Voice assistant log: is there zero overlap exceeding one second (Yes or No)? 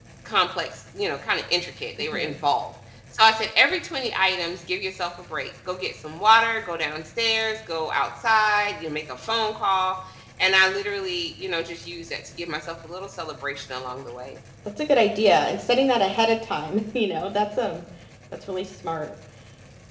Yes